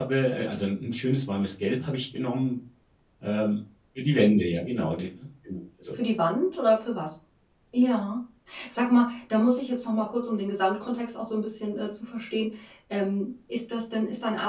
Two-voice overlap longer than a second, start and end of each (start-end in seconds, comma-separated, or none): none